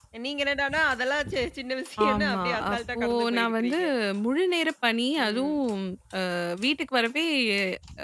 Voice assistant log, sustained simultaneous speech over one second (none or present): present